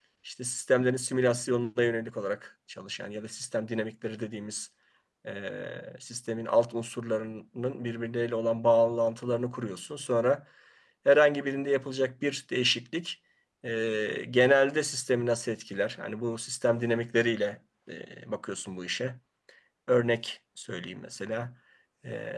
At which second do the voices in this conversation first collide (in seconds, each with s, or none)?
none